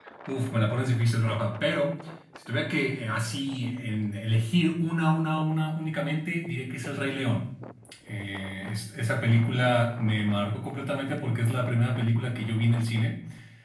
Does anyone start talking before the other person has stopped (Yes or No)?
No